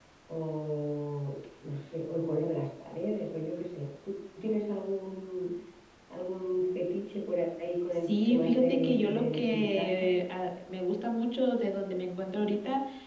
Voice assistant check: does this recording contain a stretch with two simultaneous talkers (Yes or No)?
Yes